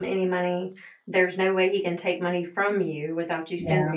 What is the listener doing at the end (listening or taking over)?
listening